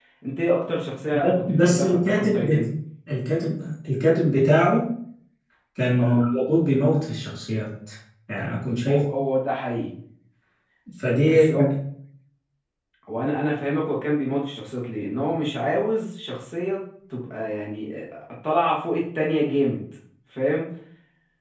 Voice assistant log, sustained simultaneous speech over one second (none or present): present